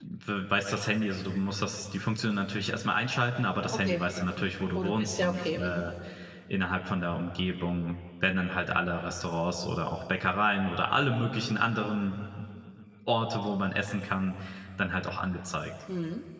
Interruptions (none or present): present